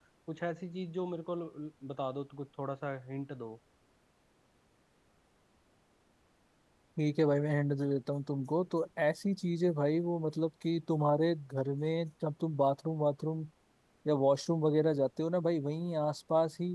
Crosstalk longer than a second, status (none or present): none